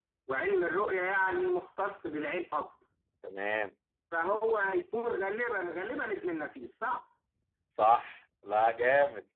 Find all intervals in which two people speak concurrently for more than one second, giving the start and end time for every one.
none

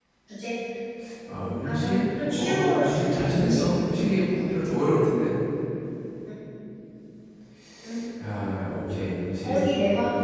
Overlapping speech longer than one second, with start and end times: 1.6-3.6

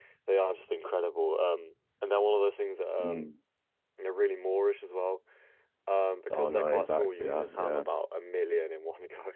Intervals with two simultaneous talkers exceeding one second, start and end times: 6.3-7.8

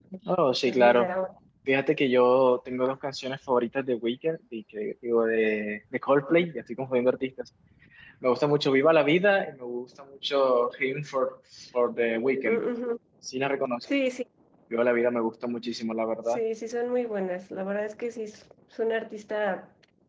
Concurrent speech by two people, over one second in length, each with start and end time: none

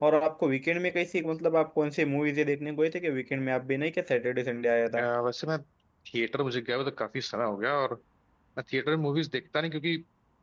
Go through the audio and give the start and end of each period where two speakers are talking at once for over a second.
none

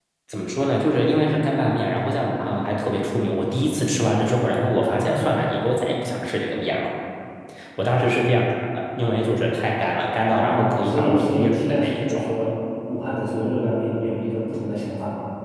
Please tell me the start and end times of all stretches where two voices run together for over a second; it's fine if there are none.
10.3-12.3

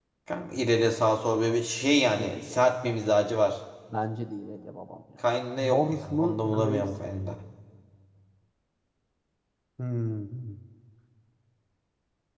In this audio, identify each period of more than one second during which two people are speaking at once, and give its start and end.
5.7-7.1

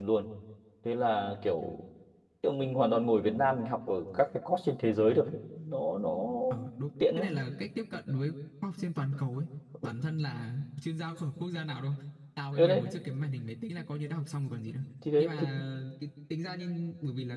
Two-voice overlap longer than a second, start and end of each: none

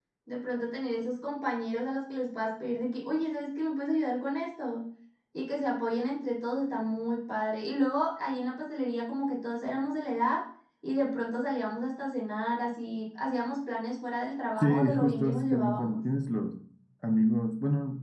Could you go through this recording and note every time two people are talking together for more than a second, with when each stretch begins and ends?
14.6-16.0

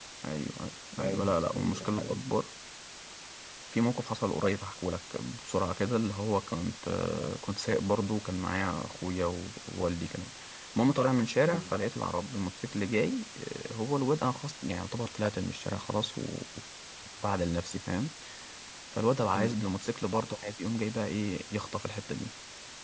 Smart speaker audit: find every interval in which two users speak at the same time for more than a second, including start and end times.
1.0-2.3

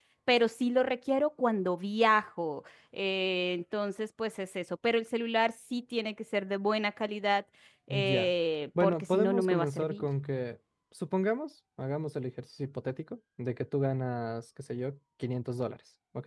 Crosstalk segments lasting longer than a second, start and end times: 8.8-10.1

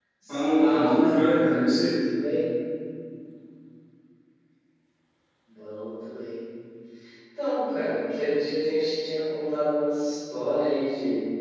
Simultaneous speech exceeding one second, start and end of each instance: 0.6-1.9

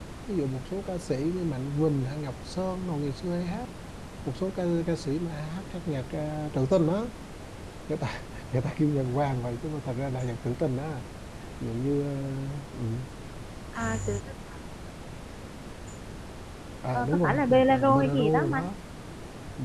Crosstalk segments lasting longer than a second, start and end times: 16.9-18.7

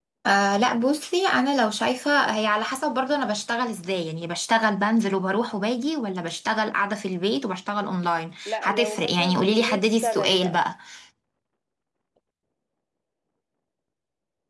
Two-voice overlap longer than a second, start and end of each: 8.4-10.6

